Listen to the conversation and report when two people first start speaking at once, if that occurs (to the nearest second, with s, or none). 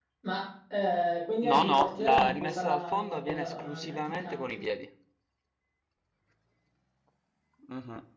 1 s